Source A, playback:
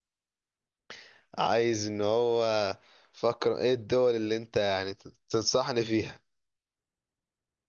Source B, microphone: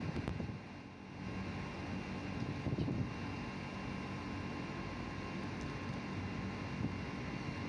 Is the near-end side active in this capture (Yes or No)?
No